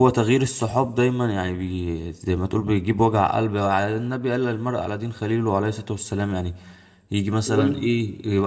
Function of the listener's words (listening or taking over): listening